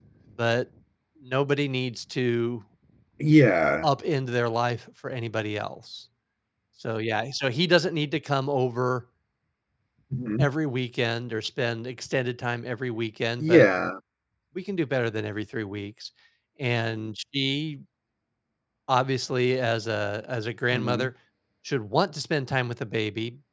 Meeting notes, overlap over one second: none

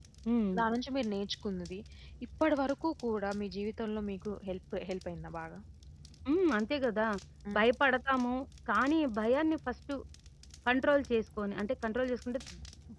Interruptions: none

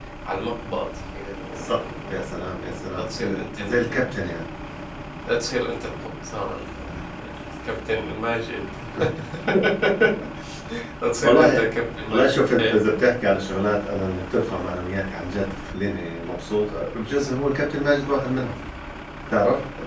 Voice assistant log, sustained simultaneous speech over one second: present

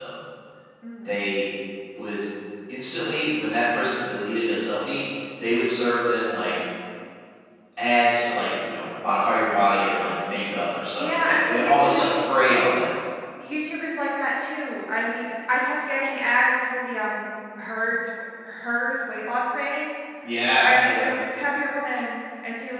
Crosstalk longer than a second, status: present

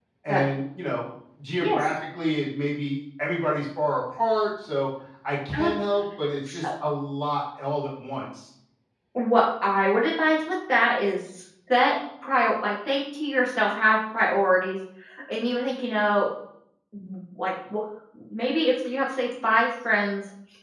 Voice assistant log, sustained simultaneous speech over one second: none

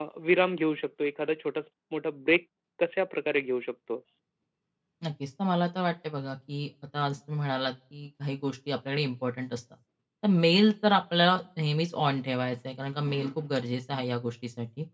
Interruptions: none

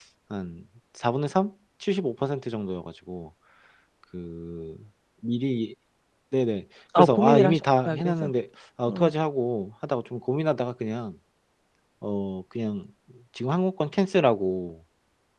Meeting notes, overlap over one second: present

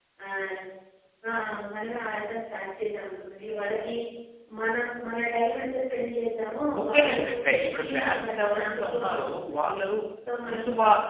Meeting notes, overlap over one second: present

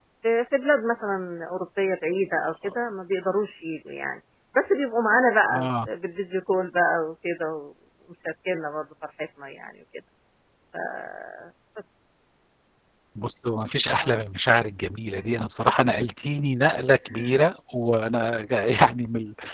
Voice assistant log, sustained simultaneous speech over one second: none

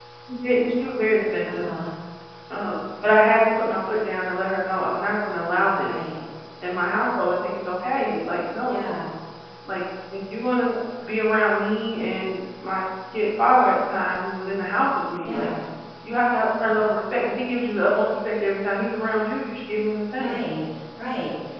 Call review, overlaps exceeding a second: none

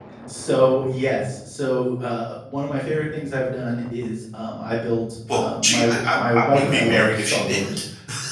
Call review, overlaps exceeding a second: present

